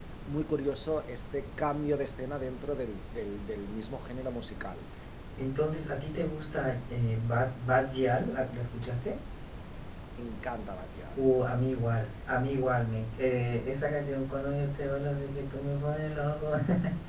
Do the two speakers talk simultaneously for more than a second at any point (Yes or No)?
No